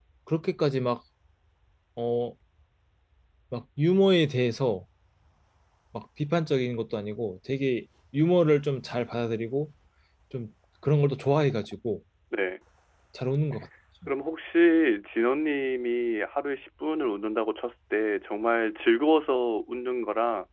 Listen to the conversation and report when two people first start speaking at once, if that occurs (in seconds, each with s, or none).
none